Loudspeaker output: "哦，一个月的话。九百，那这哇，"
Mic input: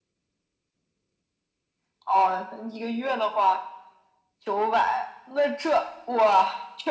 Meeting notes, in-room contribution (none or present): none